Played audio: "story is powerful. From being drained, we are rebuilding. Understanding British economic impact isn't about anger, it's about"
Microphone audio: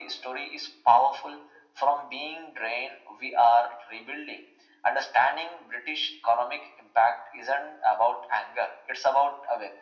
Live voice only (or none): none